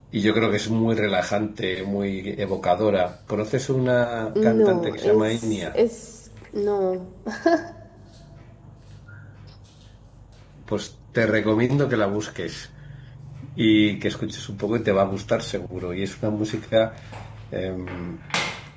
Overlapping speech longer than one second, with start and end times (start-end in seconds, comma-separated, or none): 4.4-5.8